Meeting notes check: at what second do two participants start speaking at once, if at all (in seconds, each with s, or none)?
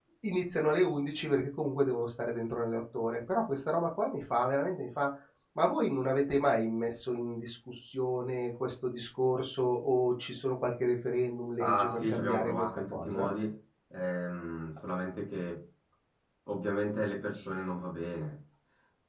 11.6 s